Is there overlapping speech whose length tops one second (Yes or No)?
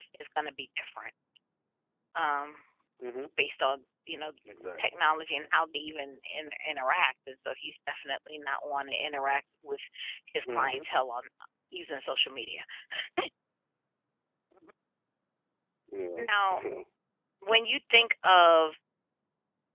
No